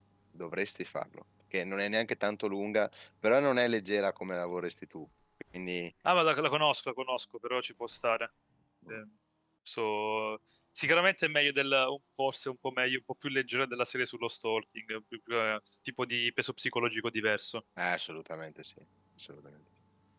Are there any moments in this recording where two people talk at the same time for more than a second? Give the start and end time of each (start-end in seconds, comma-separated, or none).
none